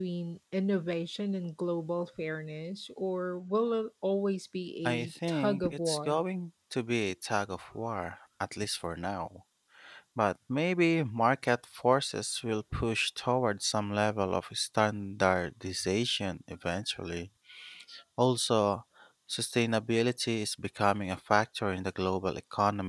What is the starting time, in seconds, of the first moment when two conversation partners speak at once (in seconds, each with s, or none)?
4.8 s